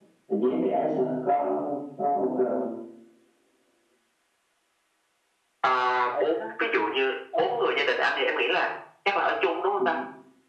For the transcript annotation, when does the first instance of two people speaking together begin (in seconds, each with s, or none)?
none